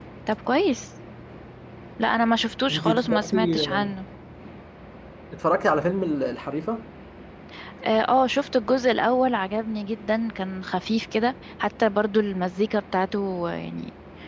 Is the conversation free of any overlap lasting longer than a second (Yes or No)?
No